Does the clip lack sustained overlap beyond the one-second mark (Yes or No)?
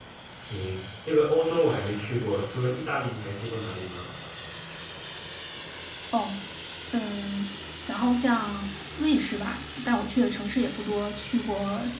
Yes